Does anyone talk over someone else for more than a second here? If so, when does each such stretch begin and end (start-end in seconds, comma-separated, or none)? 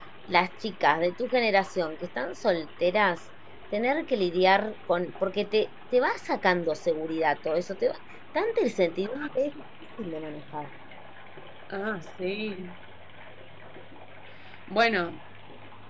none